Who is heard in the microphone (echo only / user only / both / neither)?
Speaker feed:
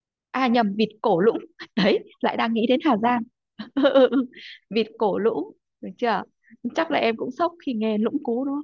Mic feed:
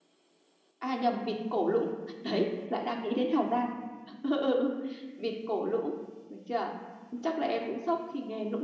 echo only